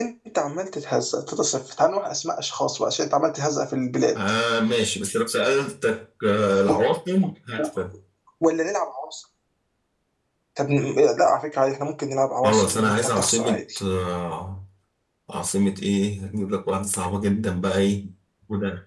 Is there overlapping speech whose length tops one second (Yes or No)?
Yes